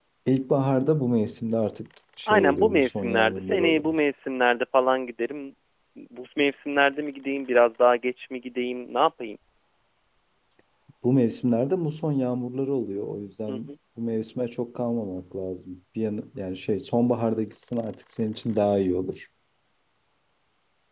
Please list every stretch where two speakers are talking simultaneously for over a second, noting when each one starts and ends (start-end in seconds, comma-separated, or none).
2.3-3.9